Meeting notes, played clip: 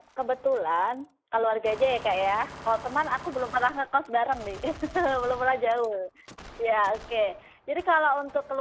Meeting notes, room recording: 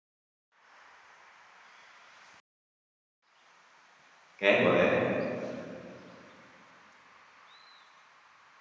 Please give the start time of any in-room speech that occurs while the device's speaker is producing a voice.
4.3 s

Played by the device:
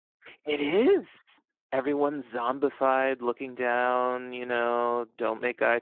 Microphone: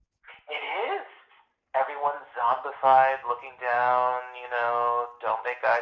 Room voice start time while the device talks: none

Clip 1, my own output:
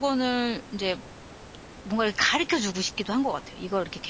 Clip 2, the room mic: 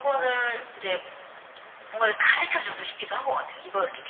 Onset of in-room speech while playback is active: none

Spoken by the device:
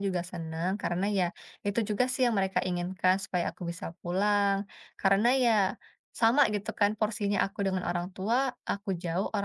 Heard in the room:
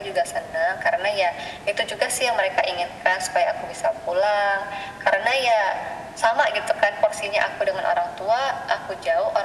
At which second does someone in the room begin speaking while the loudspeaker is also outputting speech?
none

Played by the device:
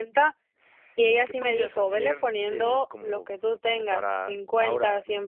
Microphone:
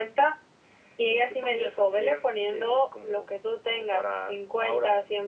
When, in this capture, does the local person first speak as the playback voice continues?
none

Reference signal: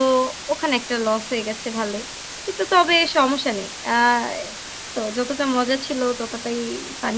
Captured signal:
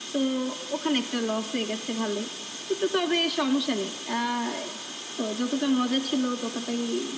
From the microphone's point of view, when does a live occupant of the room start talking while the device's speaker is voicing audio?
none

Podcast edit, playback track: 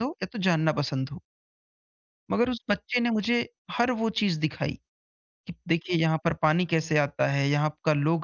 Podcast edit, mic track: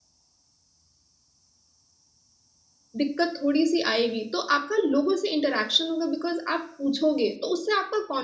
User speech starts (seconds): 3.0 s

